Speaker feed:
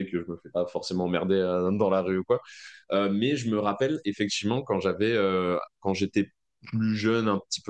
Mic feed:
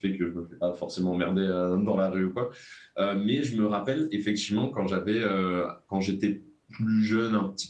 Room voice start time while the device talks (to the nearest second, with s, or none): none